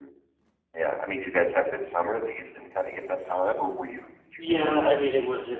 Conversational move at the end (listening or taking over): taking over